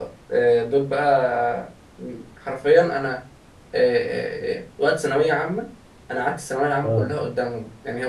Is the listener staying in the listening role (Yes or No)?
Yes